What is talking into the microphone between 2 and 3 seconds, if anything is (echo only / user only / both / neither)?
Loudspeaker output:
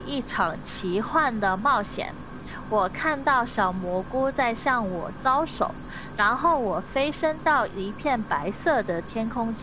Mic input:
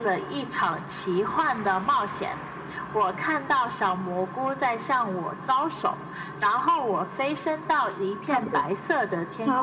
echo only